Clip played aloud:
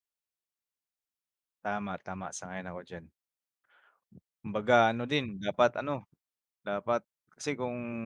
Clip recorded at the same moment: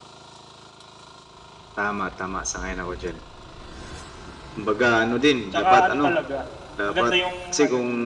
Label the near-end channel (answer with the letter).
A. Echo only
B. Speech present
B